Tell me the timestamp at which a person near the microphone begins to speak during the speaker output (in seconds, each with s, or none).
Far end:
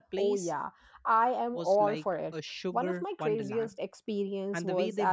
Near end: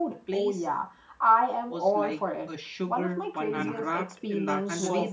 3.5 s